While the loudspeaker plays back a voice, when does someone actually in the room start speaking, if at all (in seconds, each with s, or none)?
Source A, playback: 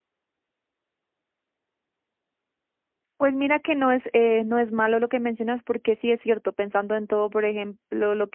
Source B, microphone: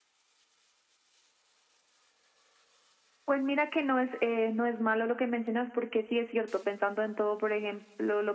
none